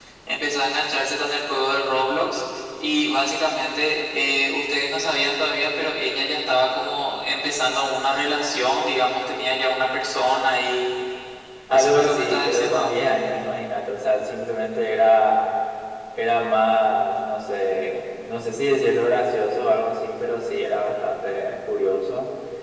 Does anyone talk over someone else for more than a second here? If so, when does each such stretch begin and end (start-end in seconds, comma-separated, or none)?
11.7-12.9